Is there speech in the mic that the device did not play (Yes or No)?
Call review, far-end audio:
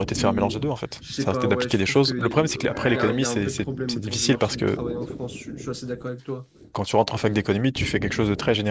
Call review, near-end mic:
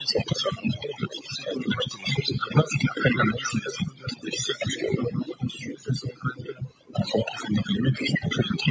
No